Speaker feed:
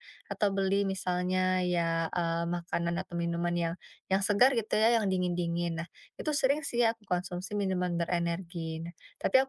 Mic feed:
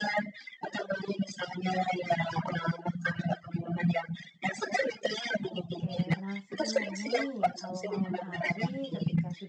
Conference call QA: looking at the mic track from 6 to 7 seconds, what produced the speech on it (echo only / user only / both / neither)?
both